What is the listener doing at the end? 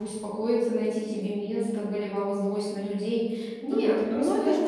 taking over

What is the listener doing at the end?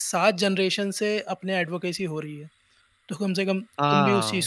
taking over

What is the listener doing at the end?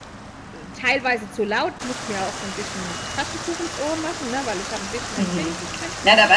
taking over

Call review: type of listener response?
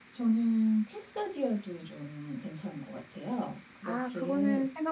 taking over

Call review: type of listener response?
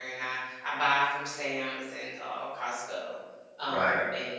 taking over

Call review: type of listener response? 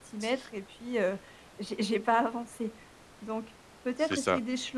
listening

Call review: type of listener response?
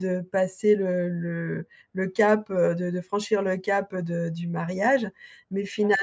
listening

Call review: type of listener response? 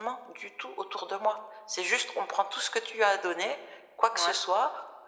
listening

